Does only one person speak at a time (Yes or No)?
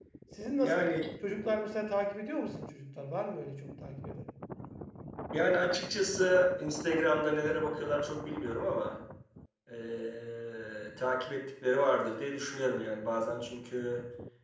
Yes